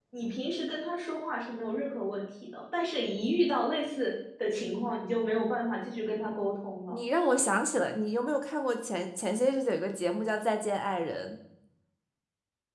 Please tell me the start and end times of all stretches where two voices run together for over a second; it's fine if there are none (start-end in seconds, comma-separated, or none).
none